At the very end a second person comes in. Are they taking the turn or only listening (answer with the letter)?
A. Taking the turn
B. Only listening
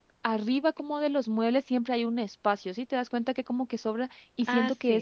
B